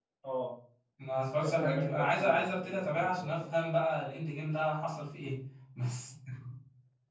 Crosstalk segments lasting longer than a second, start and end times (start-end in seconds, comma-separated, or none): 1.4-3.4